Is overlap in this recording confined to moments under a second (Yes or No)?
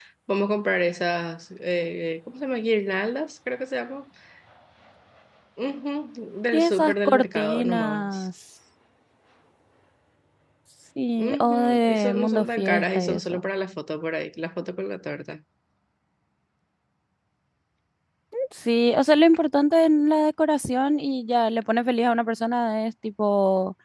No